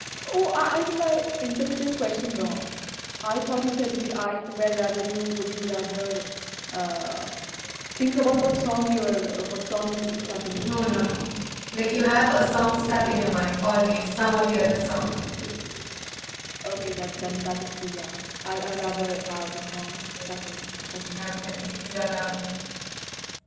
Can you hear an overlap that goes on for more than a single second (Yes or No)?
No